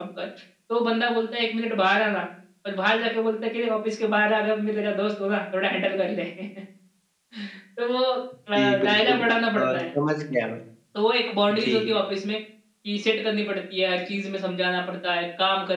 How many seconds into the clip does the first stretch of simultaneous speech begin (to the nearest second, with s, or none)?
9 s